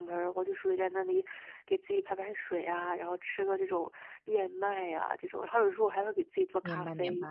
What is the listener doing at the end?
taking over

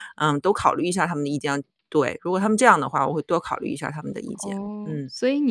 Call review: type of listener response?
taking over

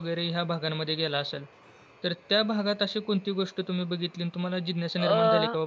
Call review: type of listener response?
listening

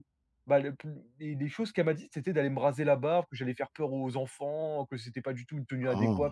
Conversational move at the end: listening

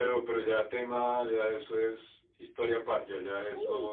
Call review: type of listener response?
taking over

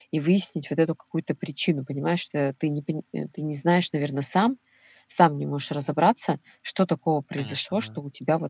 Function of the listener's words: listening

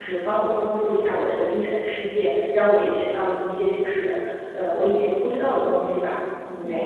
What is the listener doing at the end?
listening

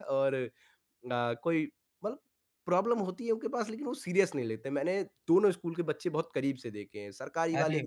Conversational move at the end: listening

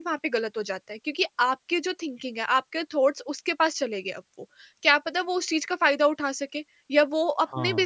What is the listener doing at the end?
listening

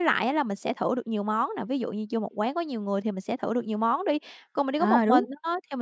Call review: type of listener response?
listening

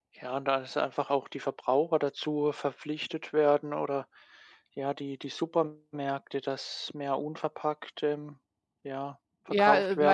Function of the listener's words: taking over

